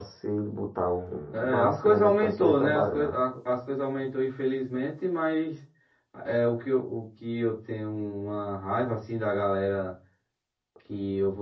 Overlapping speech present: Yes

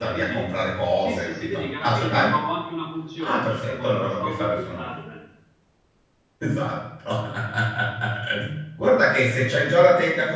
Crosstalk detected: Yes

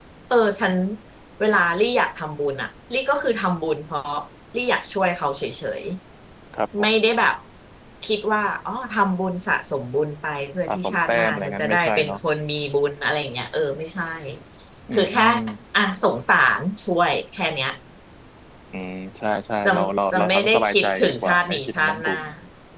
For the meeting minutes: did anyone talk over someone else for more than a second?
Yes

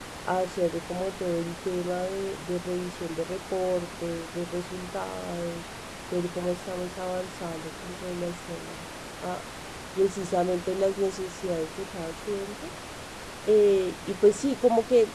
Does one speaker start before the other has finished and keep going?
No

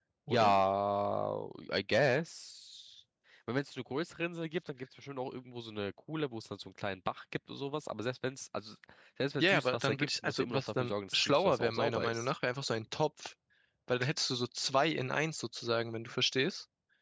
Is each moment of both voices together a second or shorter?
No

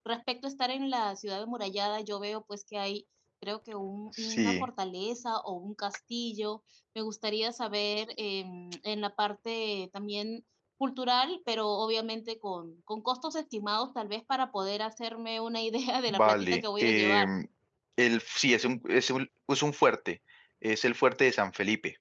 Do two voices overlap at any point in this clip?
Yes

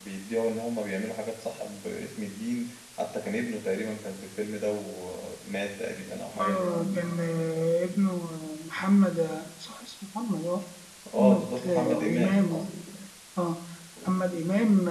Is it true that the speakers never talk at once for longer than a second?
No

